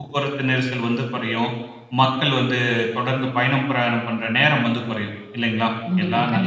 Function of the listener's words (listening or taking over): listening